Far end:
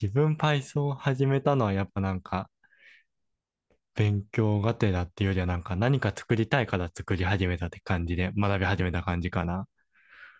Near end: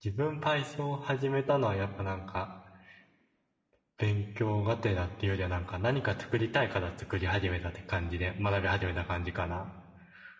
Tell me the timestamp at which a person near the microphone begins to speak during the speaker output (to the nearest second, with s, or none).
none